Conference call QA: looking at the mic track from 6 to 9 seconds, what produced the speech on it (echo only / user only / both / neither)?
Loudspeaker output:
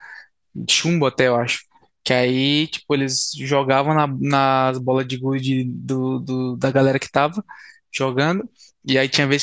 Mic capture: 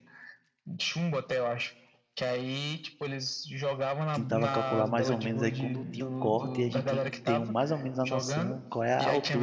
both